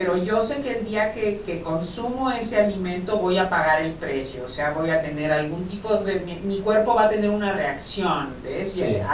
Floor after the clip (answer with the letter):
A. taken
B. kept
B